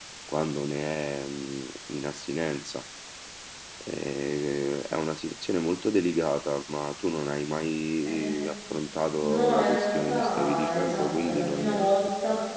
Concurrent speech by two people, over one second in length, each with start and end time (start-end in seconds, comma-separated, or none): 9.2-11.8